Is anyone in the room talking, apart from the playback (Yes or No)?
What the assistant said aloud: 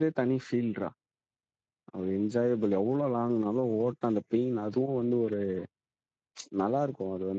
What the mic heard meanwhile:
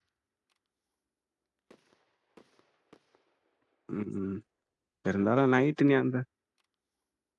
Yes